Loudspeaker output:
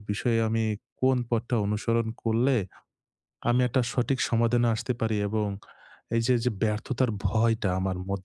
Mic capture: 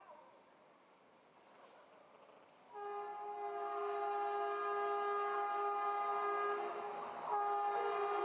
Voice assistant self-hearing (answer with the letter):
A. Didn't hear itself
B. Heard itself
A